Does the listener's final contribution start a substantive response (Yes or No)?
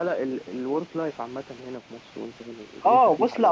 Yes